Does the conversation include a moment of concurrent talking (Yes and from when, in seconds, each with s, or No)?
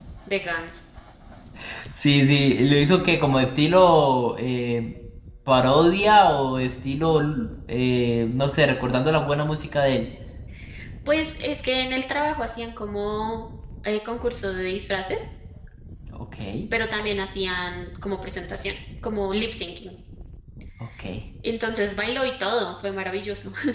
No